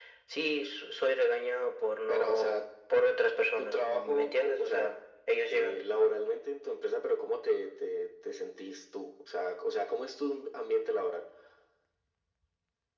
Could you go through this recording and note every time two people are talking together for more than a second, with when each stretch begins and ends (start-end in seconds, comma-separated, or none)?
3.6-4.9